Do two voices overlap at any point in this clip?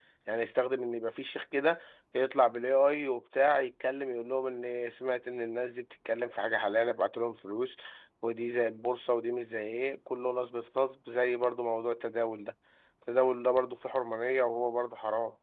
No

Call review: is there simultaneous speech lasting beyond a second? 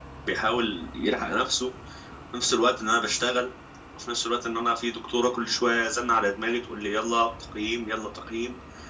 No

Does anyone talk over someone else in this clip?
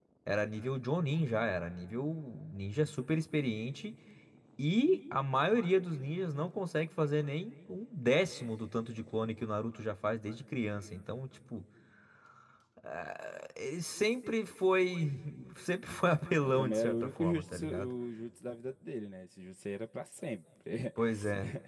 Yes, from 16.4 s

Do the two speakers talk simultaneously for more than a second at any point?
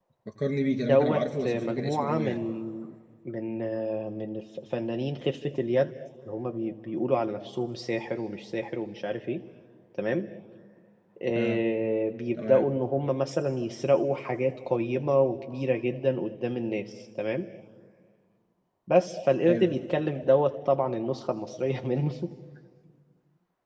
Yes, from 0.8 s

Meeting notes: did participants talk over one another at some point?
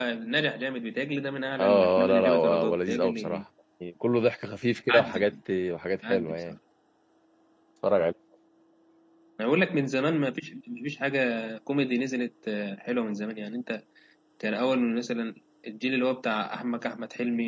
Yes, from 1.6 s

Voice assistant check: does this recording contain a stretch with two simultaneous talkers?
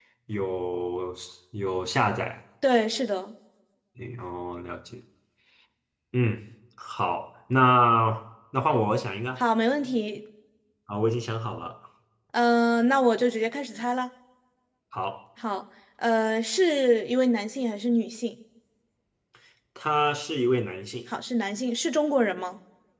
No

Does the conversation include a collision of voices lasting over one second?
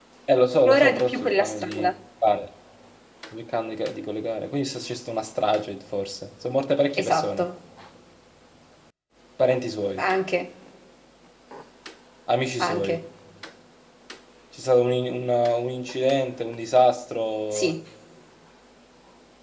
Yes, from 0.7 s

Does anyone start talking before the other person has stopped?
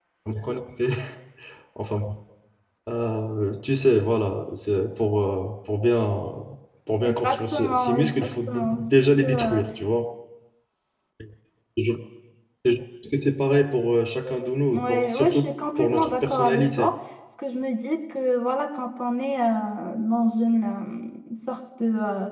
Yes, from 7.0 s

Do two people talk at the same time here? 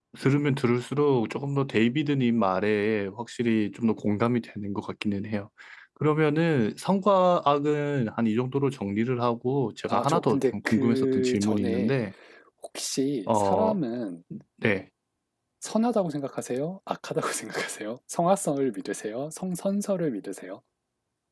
Yes, from 9.9 s

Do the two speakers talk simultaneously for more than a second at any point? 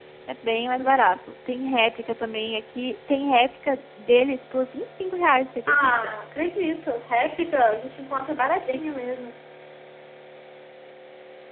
No

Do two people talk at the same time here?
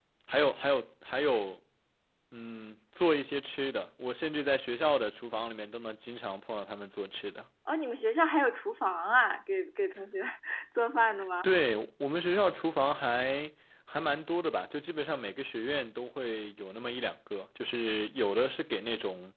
No

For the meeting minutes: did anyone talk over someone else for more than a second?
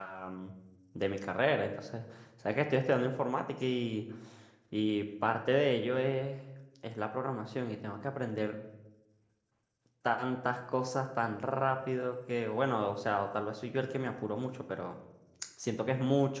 No

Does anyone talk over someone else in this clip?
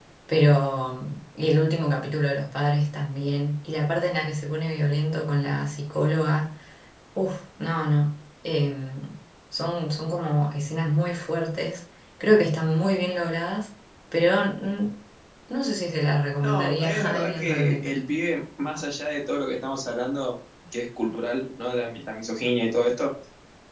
Yes, from 16.4 s

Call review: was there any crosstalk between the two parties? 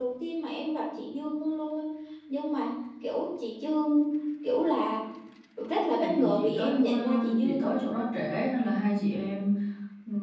Yes, from 6.0 s

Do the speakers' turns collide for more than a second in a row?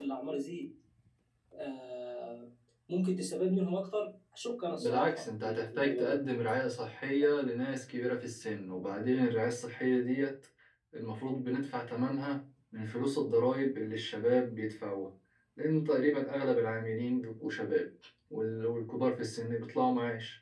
Yes, from 4.8 s

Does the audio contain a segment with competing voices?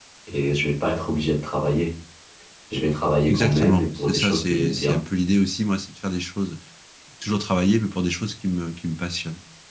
Yes, from 3.3 s

